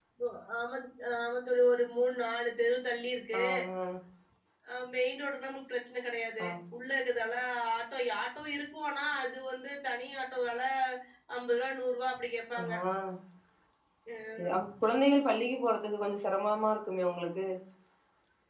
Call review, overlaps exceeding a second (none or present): none